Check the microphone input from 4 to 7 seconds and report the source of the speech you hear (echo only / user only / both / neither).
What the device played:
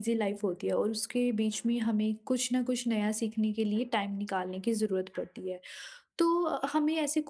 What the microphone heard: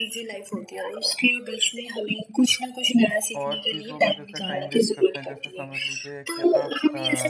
both